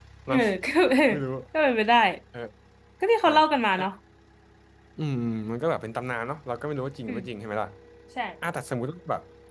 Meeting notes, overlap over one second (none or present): none